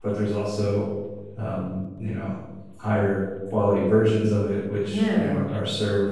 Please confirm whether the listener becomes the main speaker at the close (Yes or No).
No